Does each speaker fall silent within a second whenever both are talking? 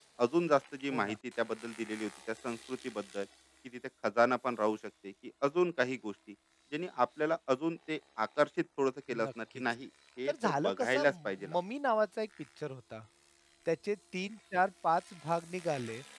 No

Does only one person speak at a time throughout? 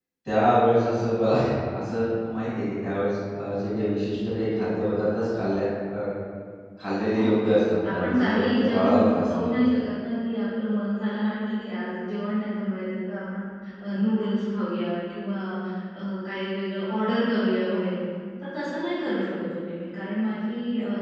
No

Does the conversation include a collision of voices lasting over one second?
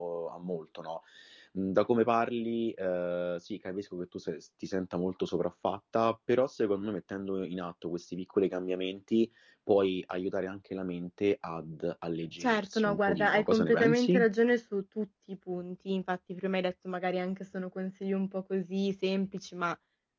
Yes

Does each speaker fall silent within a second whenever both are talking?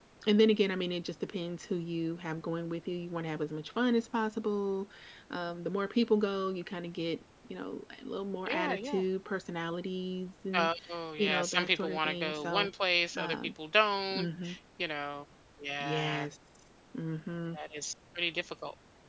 No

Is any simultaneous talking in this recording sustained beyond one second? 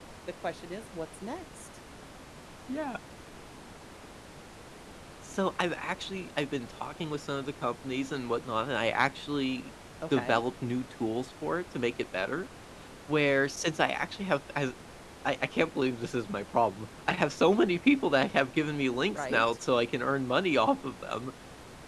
No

